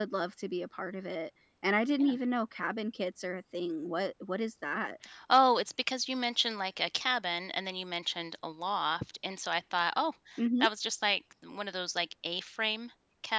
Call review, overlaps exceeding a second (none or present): none